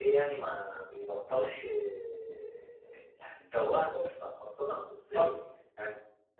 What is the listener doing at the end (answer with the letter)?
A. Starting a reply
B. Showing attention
B